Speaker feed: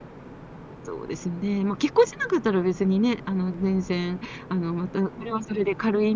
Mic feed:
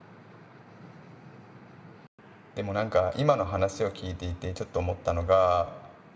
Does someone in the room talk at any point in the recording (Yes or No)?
Yes